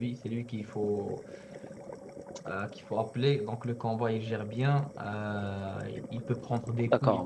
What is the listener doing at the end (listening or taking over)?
taking over